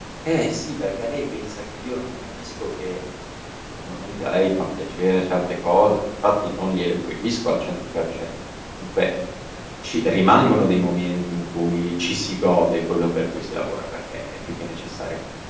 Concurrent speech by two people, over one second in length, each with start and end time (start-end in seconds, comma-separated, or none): none